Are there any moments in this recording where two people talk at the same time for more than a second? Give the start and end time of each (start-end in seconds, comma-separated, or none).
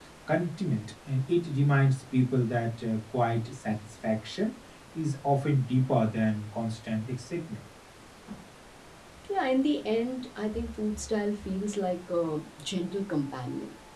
none